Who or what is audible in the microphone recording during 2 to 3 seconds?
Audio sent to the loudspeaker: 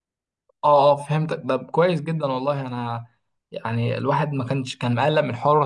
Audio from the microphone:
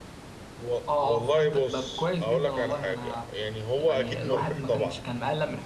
both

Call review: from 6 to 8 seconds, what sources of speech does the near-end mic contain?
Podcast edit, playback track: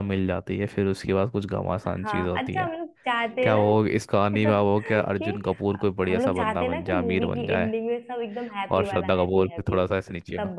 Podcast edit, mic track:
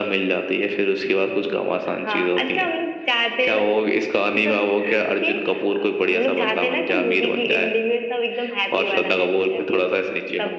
echo only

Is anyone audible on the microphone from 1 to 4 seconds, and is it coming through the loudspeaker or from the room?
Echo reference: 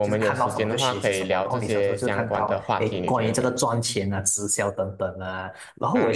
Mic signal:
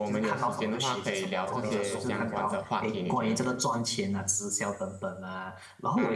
both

